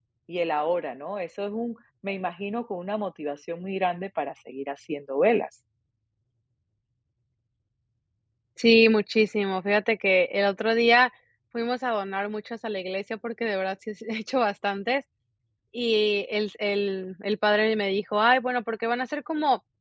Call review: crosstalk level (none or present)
none